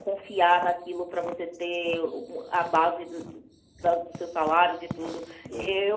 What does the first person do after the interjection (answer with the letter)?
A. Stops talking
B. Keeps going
A